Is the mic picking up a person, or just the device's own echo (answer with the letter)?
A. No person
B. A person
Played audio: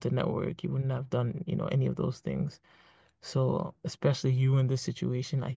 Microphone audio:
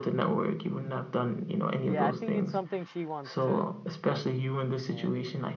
B